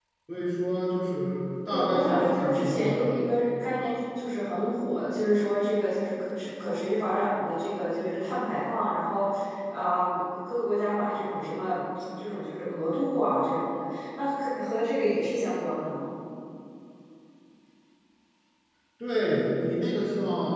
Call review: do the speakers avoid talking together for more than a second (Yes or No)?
No